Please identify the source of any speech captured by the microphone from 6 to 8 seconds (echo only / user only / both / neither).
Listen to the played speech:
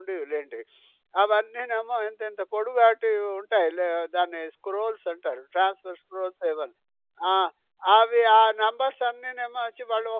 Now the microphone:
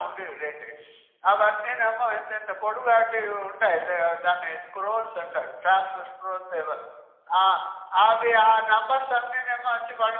echo only